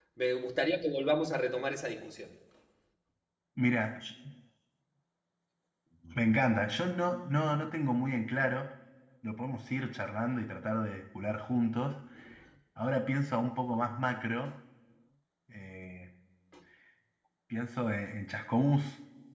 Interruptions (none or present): none